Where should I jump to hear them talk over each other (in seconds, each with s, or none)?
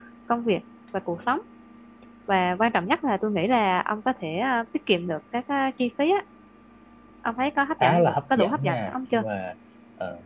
7.8 s